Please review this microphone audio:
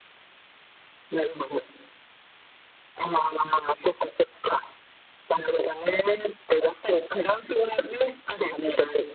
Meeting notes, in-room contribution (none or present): none